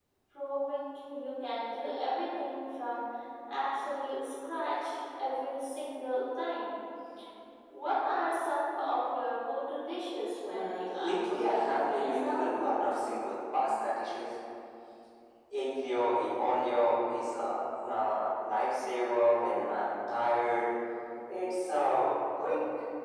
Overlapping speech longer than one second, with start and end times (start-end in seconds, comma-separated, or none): 10.5-12.5